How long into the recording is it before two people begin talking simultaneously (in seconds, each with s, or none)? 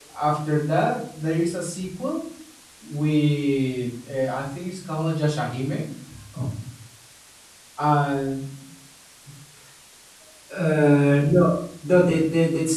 none